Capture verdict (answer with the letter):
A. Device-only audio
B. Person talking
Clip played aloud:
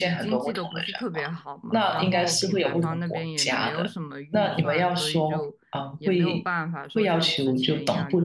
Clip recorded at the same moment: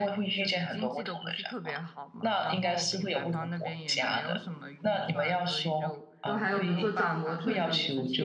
B